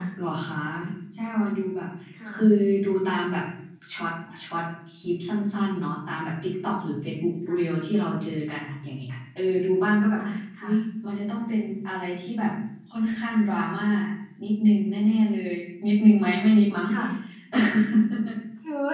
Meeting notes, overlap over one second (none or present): none